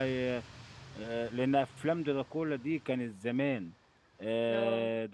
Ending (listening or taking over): listening